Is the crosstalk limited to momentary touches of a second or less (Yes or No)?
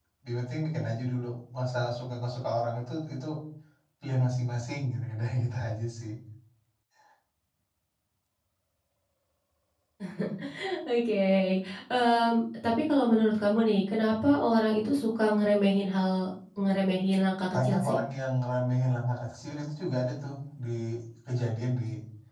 Yes